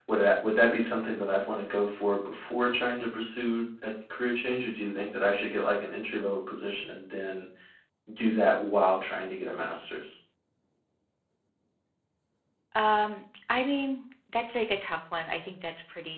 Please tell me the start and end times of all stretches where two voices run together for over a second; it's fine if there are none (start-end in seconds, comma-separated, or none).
none